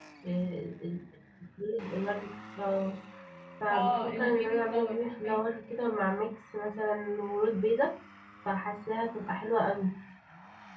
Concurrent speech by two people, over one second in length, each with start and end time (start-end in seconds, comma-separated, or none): 3.7-5.4